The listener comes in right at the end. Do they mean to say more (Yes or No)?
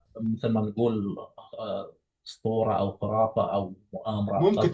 Yes